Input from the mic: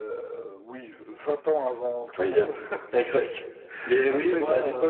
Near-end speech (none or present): present